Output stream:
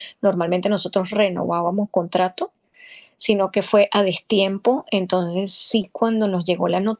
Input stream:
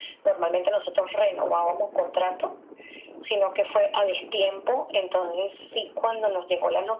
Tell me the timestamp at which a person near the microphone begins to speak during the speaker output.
none

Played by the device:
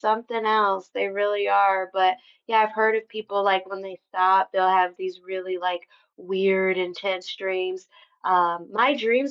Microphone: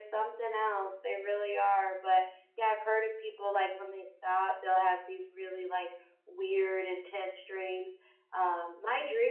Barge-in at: none

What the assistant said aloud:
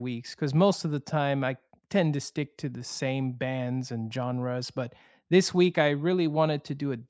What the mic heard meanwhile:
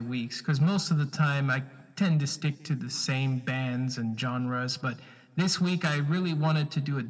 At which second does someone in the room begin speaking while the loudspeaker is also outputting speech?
none

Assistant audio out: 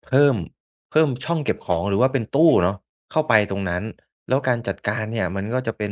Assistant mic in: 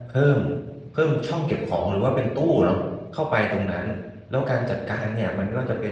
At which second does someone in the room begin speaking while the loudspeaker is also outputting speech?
none

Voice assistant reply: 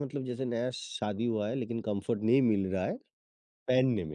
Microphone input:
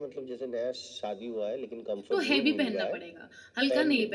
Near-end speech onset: 2 s

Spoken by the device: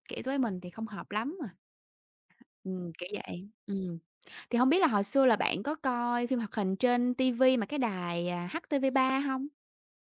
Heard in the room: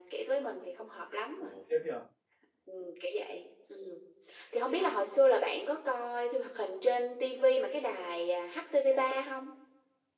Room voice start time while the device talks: 1 s

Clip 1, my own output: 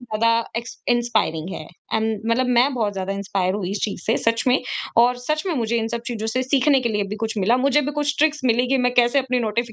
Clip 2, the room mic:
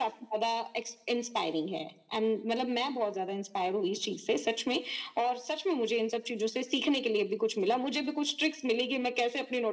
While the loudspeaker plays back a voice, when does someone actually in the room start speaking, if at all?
none

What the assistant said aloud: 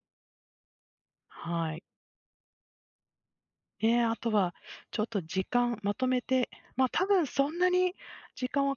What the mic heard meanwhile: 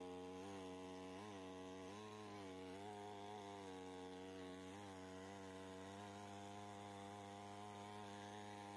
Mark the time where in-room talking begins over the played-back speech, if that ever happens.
none

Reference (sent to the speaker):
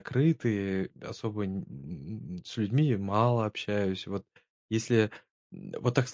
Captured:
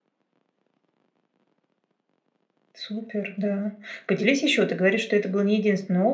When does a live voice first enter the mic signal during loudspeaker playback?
3 s

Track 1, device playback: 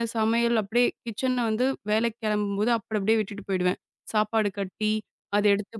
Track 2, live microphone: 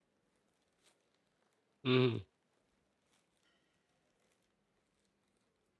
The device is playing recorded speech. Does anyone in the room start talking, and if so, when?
2 s

